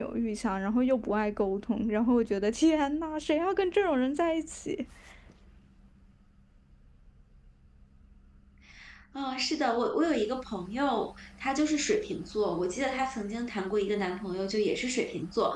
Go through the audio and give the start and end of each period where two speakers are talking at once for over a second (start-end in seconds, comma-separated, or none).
none